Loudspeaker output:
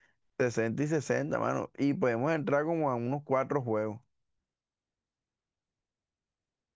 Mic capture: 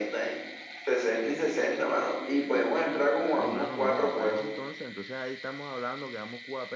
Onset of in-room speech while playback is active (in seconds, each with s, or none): 3.1 s